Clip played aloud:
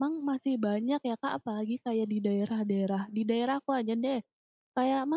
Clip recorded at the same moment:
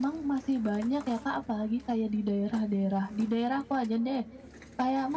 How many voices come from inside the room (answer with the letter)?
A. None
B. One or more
A